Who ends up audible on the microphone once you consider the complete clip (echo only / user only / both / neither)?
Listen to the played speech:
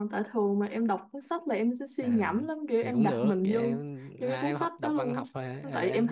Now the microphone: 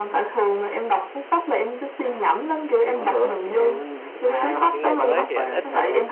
both